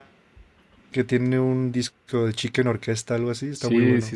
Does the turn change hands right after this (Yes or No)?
Yes